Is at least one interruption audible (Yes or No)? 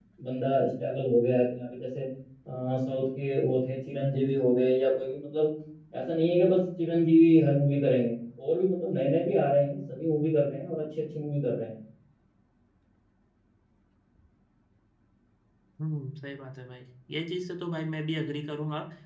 No